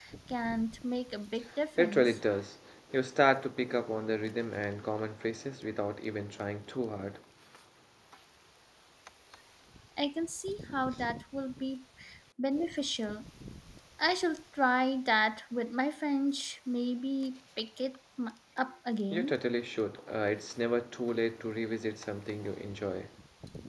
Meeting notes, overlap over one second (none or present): none